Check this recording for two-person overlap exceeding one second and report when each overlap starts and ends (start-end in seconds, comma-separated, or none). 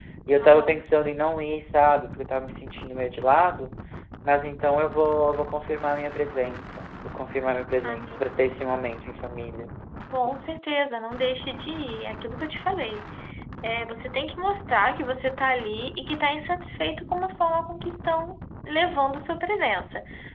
none